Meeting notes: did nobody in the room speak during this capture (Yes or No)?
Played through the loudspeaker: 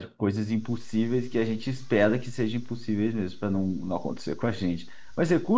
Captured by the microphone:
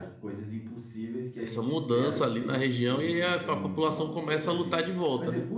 No